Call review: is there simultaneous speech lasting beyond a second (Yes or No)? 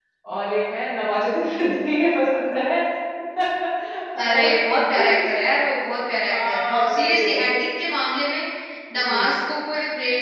Yes